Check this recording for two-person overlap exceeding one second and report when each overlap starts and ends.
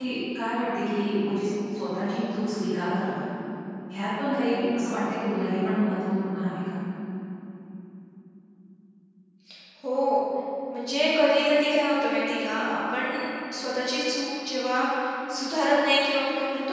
none

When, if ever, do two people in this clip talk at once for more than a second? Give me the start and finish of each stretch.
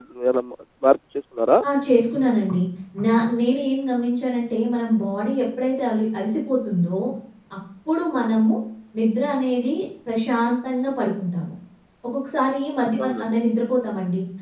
none

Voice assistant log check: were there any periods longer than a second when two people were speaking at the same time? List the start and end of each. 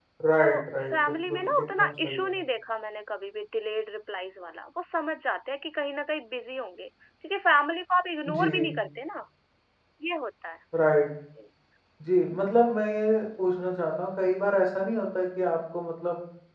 0.9-2.4

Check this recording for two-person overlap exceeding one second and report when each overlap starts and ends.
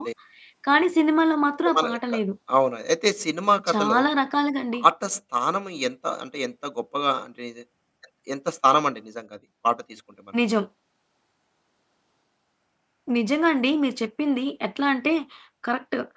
none

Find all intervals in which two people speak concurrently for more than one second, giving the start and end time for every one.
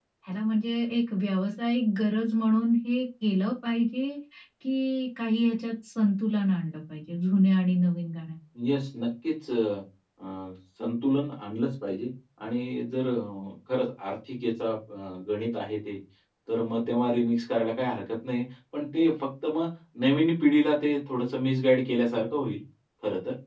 none

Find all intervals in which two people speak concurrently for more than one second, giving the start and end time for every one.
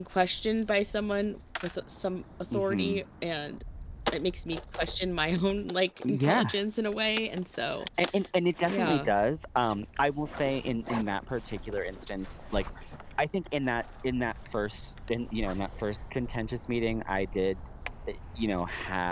none

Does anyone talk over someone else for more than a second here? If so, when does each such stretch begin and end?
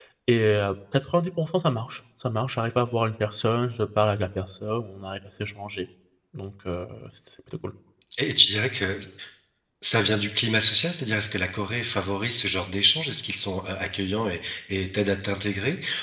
none

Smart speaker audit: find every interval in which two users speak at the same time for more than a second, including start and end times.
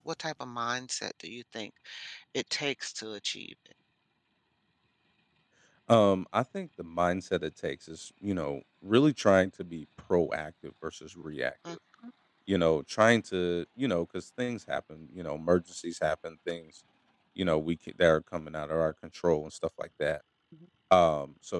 none

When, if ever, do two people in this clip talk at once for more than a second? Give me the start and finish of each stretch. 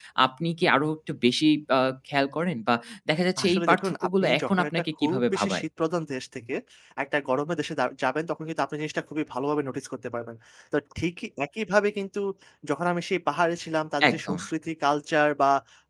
3.4-5.6

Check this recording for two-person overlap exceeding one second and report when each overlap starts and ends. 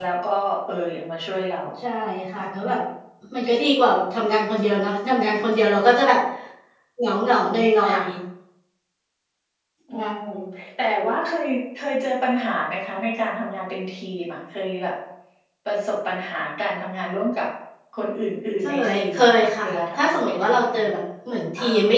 18.6-20.8

